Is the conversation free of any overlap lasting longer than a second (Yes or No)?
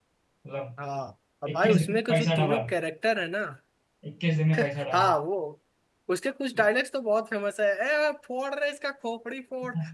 No